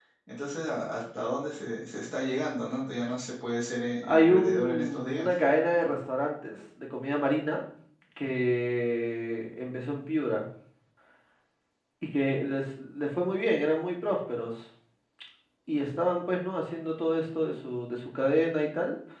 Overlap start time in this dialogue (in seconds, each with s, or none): 4.0 s